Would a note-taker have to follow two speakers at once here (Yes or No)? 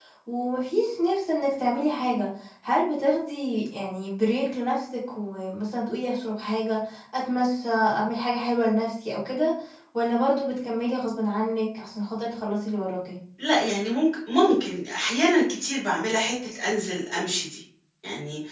No